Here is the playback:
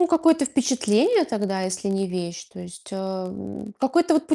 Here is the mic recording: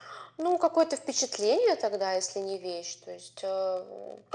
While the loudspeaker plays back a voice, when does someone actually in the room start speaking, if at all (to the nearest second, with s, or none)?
none